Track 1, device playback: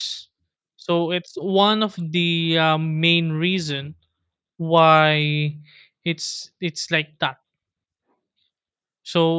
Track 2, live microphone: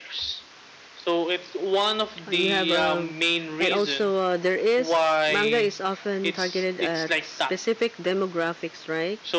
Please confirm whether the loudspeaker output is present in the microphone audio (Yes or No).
Yes